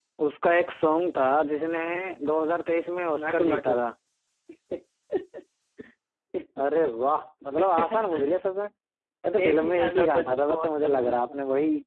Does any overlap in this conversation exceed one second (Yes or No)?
Yes